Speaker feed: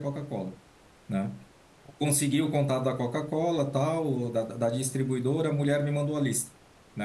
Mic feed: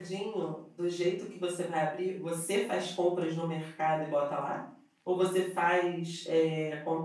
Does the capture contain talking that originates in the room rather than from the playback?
Yes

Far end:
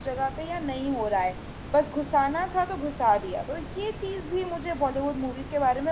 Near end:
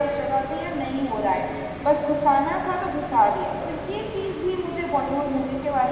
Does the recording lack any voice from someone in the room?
Yes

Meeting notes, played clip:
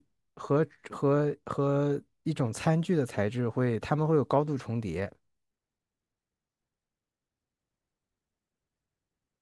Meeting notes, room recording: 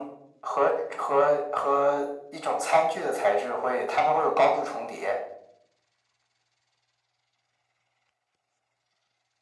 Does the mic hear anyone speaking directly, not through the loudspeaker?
No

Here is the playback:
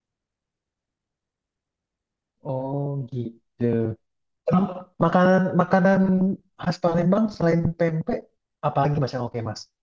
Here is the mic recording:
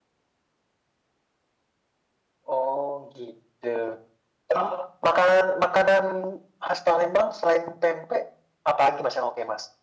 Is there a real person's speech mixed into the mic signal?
No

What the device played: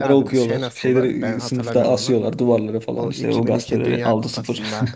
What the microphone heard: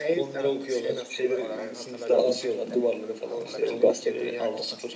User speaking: Yes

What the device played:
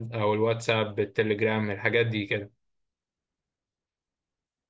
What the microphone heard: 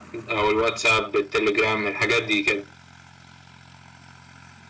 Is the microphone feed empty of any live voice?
Yes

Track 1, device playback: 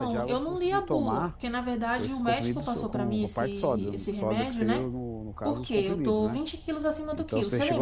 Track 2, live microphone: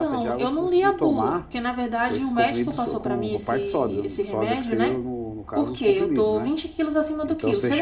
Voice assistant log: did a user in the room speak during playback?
No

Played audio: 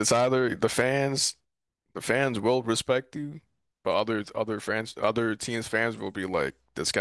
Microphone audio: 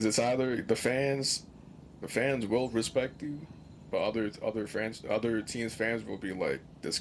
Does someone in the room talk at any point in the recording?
No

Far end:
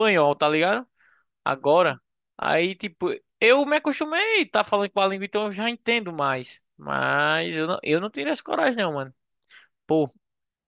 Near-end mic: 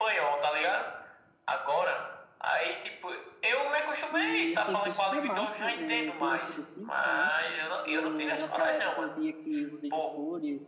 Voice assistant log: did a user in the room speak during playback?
Yes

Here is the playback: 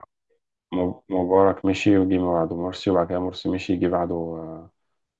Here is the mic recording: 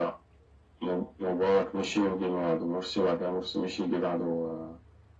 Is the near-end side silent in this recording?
Yes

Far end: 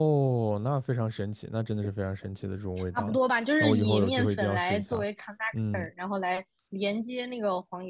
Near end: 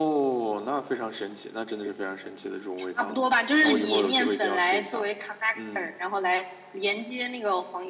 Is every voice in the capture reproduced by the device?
Yes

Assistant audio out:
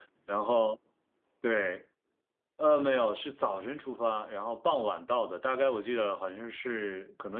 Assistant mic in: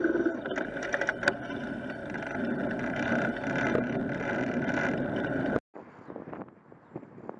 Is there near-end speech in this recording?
No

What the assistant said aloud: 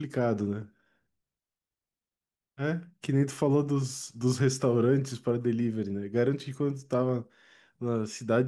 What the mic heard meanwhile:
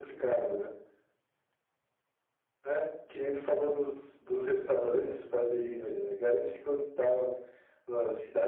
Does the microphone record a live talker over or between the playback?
No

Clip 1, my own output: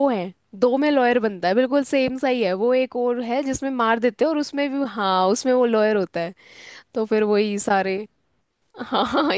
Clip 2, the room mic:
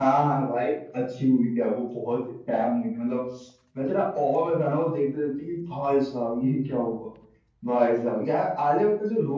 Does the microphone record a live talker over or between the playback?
Yes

